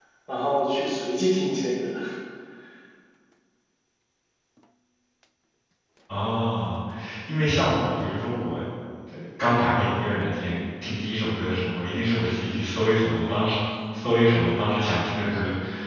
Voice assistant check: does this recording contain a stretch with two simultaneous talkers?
No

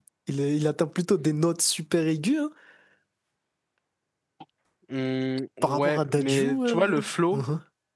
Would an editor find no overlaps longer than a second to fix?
No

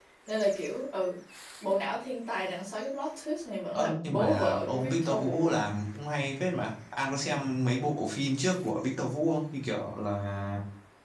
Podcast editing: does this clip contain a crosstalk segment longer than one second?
Yes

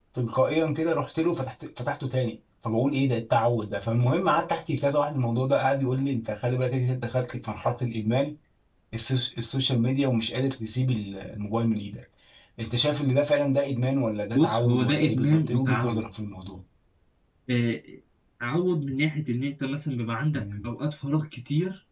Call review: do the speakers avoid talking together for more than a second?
No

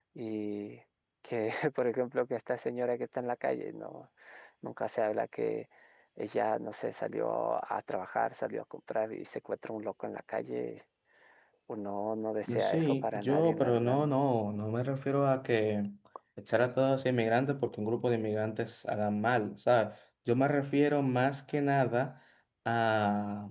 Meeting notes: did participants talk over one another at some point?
Yes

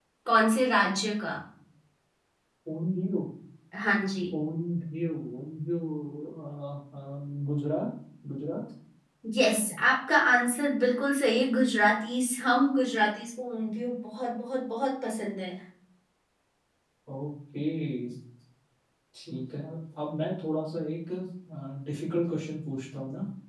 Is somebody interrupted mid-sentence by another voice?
No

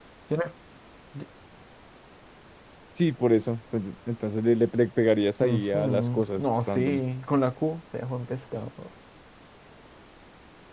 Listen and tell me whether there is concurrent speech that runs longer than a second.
Yes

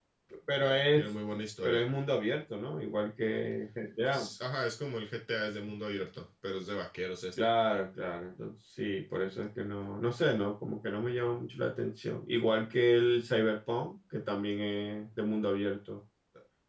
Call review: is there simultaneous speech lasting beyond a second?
No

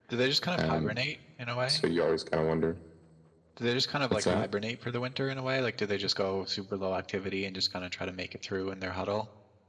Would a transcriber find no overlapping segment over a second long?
Yes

